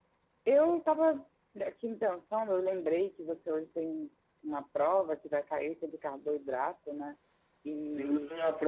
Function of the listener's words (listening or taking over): taking over